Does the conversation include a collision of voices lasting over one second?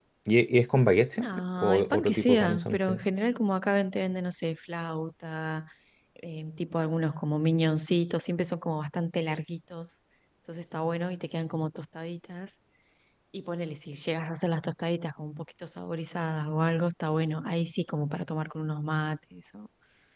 Yes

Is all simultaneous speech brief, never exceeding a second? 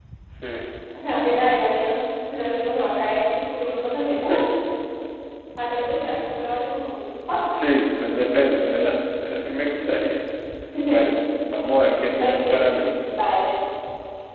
Yes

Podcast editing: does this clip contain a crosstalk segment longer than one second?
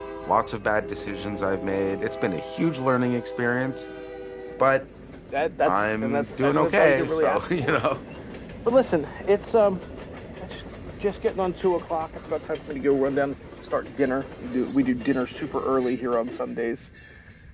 Yes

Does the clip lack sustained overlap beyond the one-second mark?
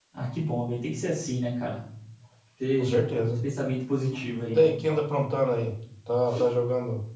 Yes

